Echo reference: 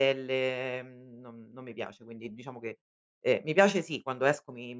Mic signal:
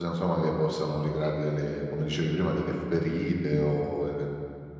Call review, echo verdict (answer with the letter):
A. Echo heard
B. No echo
B